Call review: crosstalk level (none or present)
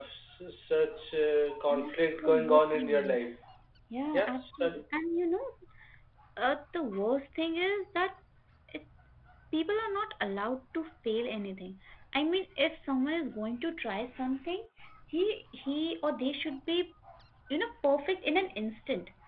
present